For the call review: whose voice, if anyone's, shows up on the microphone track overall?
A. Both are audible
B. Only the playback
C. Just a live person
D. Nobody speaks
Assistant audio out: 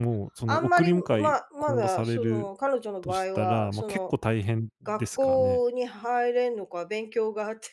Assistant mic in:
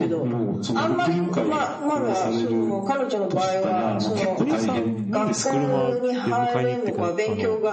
A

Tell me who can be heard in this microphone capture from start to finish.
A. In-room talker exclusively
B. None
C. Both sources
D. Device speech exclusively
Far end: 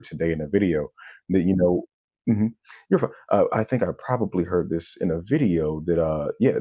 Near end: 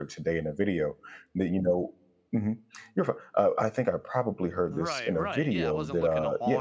C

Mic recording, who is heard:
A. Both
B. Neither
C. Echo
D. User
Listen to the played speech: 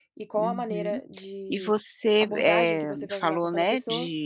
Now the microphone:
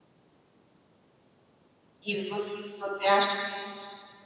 D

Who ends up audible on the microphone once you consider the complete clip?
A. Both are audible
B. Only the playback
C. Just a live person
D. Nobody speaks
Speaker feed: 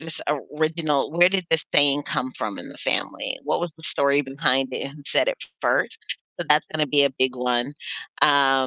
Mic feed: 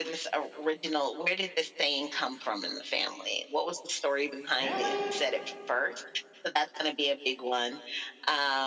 A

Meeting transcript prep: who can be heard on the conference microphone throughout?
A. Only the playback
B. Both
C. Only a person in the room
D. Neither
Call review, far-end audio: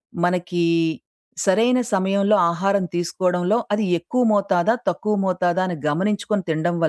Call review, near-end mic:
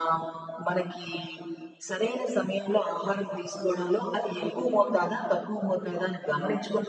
A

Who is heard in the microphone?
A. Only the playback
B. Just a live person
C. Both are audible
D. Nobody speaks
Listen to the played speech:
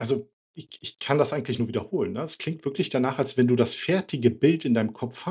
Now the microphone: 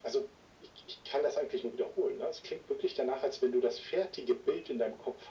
A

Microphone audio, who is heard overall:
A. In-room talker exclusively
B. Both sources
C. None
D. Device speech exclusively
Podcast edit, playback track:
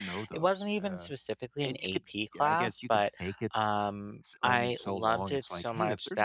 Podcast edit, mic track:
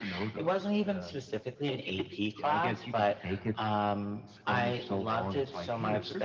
D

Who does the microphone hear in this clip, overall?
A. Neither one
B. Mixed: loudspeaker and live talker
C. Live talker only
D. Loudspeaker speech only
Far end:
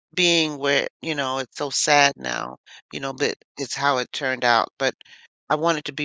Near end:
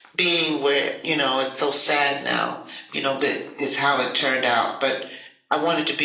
D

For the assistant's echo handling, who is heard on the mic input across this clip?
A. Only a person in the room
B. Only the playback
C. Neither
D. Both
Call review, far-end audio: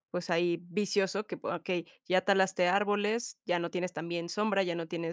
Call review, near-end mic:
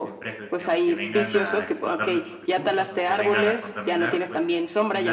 D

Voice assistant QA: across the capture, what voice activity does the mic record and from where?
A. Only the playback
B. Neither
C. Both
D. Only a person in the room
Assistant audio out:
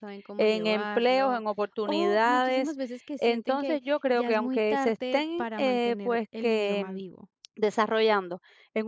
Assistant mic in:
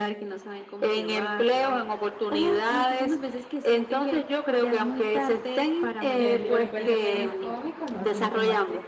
C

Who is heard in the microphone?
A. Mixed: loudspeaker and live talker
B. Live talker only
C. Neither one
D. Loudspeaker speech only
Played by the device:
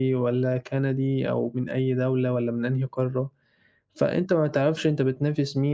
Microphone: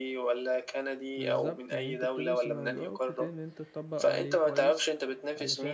A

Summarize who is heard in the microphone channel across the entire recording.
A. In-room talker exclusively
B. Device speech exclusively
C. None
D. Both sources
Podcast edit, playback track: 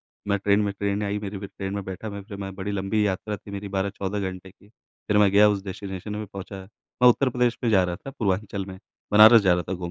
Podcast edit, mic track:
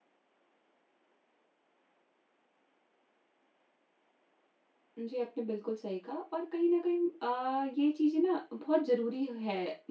A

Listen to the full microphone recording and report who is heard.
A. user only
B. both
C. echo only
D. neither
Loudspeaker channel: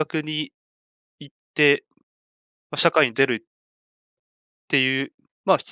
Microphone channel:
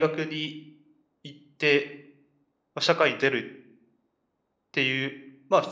C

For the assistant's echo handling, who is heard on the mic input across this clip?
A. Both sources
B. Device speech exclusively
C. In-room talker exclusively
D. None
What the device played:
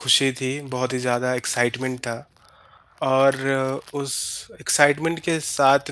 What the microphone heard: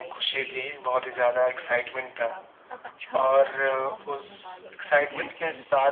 A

